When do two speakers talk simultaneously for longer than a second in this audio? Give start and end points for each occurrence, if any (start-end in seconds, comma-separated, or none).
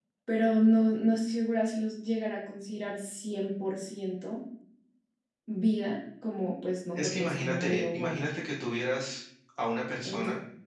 6.9-8.2